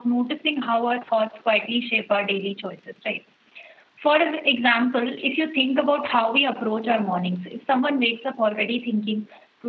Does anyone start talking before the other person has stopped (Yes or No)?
No